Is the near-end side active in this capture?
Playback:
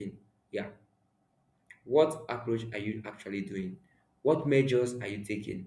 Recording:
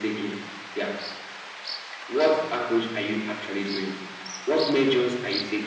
No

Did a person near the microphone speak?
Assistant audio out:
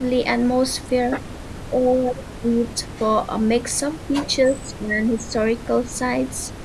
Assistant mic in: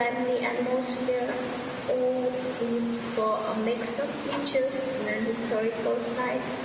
No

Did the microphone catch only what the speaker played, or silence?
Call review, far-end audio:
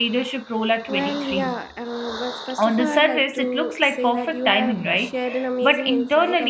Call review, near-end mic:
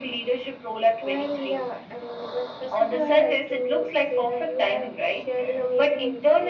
Yes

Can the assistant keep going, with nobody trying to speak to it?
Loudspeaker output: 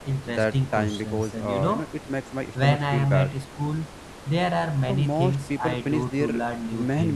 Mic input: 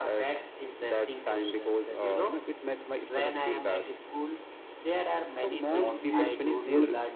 No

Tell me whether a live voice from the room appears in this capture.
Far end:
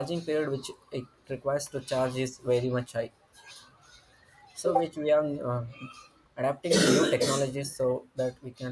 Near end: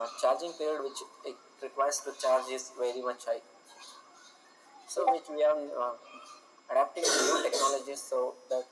No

